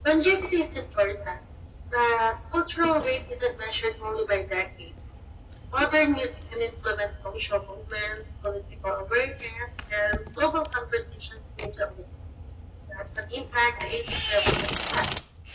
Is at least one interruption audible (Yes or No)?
No